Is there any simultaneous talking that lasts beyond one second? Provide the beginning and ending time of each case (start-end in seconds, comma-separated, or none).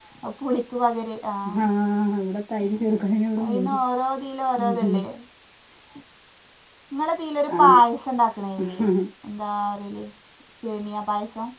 none